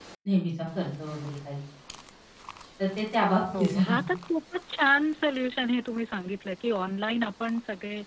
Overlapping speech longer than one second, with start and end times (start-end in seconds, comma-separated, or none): none